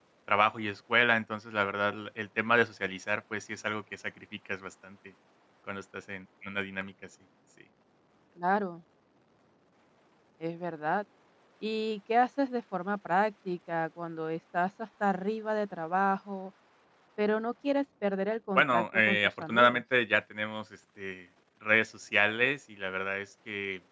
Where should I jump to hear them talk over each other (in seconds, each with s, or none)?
18.6 s